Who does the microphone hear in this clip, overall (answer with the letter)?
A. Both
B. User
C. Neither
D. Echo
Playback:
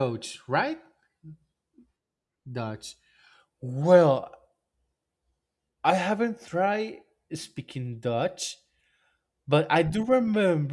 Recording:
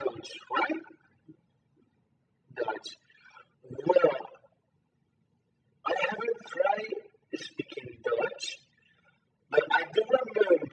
D